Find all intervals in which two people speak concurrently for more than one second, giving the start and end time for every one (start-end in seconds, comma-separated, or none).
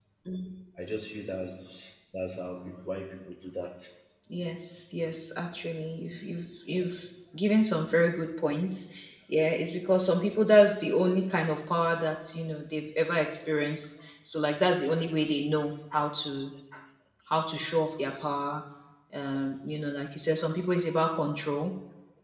none